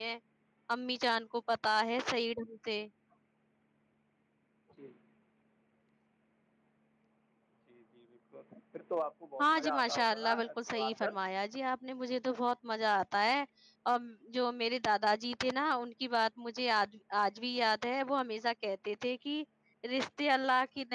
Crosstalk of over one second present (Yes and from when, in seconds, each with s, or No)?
Yes, from 9.4 s